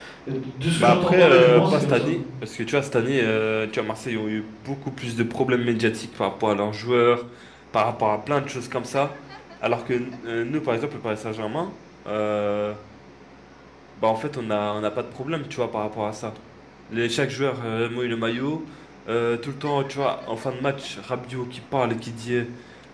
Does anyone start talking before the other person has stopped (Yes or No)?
Yes